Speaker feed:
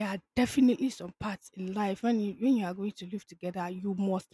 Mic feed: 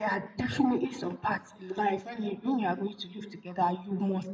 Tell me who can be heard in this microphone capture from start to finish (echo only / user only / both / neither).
echo only